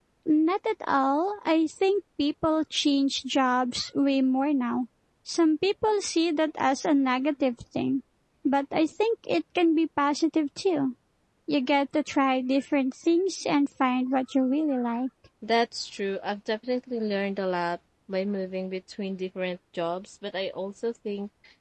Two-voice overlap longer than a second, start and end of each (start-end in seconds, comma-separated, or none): none